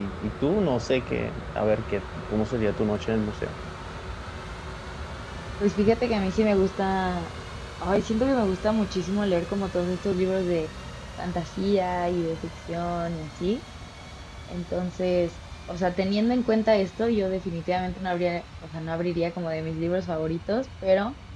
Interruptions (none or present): none